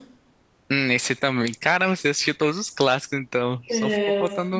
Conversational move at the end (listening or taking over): taking over